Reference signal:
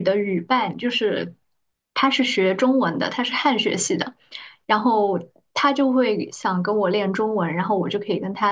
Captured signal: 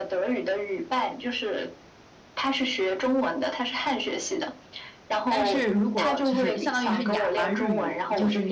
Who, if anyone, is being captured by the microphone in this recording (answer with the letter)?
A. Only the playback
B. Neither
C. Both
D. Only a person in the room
C